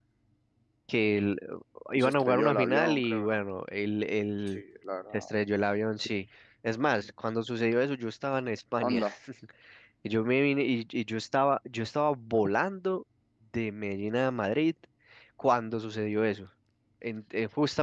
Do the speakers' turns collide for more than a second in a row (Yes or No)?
Yes